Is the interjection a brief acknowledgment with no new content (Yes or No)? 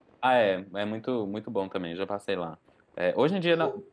Yes